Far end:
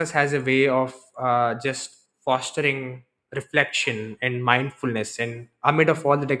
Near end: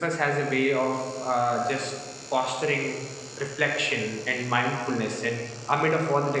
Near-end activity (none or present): none